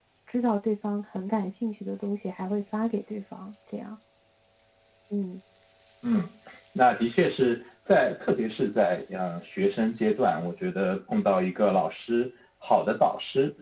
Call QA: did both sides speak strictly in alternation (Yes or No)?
Yes